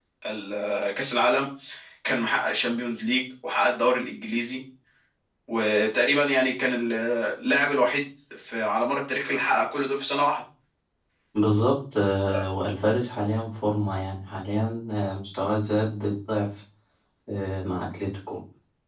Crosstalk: none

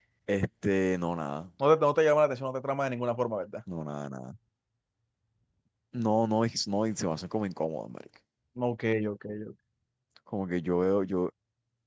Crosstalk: none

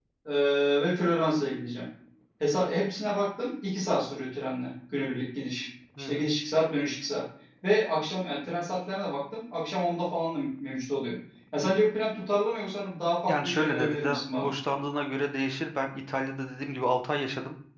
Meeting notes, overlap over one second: present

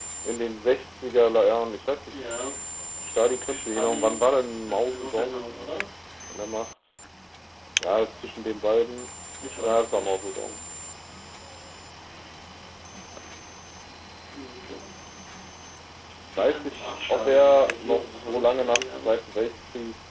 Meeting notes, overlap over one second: present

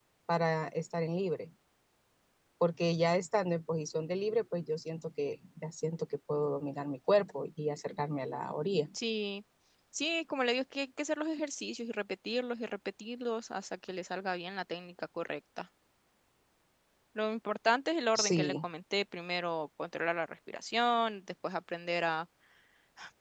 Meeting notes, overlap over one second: none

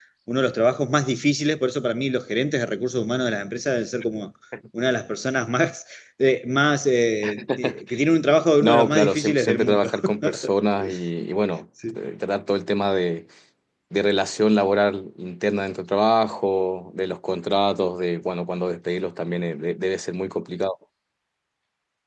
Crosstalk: present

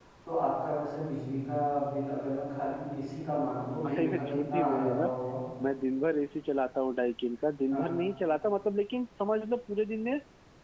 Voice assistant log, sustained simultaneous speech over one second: present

